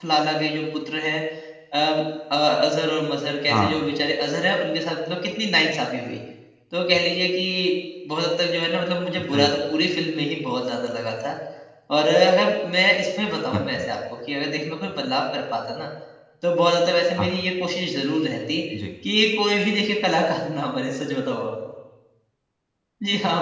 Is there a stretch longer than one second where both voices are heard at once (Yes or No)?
No